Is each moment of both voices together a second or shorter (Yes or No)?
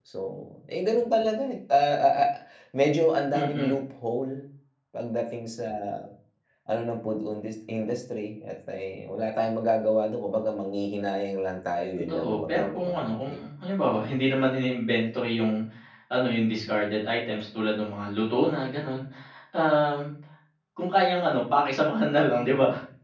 No